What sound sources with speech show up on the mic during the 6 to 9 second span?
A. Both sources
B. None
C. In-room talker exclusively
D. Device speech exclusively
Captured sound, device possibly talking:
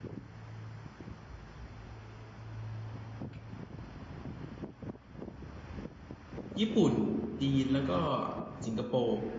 C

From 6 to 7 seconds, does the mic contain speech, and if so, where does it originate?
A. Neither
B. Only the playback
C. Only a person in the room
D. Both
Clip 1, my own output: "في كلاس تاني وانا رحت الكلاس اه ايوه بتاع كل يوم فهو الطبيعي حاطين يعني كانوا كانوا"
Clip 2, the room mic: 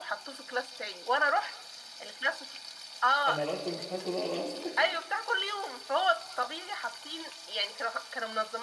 B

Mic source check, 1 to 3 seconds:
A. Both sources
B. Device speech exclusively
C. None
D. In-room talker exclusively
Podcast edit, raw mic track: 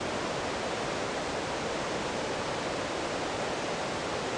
C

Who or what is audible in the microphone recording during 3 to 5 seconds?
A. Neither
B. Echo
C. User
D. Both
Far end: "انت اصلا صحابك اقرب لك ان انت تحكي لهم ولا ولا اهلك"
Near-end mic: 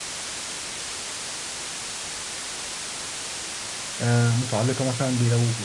C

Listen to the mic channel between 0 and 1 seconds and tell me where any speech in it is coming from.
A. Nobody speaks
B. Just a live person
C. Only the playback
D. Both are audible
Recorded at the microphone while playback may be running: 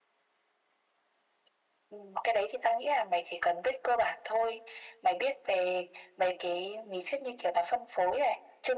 A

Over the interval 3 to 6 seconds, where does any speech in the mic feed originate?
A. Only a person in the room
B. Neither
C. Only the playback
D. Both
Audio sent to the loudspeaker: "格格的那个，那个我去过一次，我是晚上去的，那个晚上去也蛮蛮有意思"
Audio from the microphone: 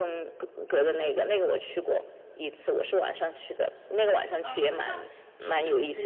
D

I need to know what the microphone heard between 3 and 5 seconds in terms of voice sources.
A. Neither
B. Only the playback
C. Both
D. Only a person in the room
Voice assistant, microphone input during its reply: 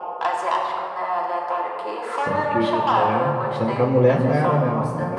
C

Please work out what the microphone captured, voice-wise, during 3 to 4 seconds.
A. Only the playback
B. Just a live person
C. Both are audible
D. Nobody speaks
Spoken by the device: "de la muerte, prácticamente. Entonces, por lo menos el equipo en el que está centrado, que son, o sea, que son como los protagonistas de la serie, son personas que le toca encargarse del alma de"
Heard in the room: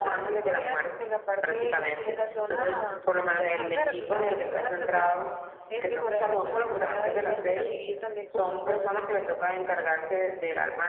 C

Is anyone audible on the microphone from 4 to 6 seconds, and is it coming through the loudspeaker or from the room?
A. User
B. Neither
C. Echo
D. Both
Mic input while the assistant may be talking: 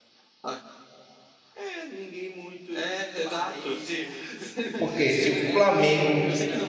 D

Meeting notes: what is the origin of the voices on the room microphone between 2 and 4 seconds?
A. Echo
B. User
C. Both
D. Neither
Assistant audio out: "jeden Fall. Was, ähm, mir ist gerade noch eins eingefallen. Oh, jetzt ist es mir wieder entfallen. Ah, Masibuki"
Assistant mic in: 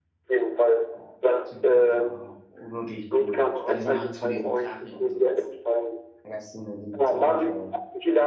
C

